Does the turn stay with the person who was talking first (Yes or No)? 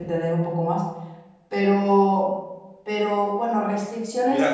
No